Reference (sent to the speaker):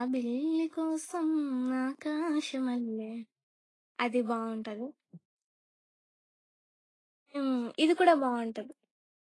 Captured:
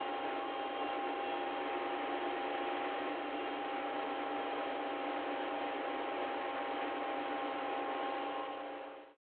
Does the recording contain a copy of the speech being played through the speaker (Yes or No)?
No